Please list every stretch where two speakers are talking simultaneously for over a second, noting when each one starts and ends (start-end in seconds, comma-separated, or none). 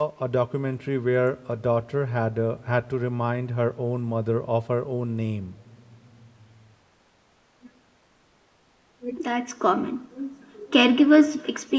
none